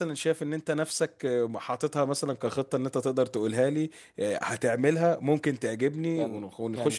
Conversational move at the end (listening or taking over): taking over